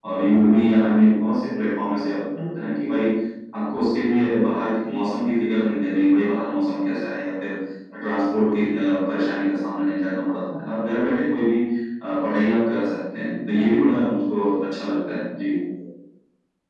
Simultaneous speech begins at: none

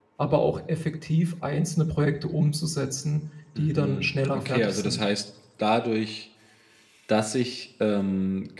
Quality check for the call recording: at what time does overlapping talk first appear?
3.6 s

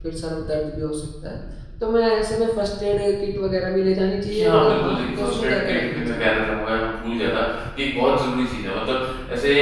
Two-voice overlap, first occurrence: 4.3 s

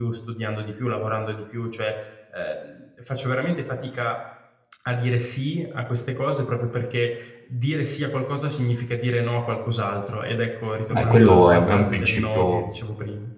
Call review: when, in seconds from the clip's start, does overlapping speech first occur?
10.9 s

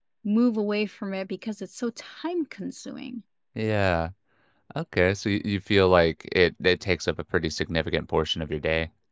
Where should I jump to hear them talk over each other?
none

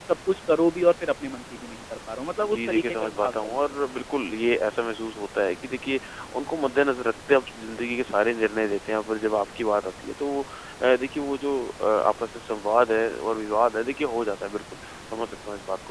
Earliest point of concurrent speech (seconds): 2.4 s

